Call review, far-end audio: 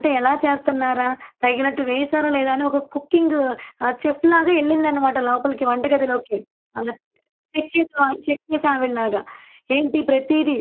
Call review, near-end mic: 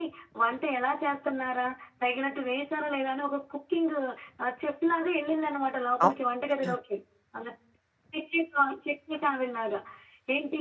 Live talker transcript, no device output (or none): అవును.